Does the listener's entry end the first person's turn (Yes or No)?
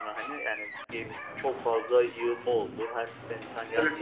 No